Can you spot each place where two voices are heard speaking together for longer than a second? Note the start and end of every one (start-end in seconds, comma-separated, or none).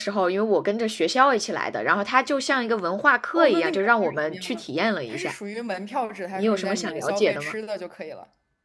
3.4-4.6, 6.3-7.5